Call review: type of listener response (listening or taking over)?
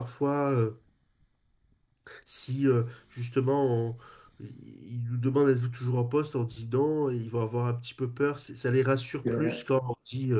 listening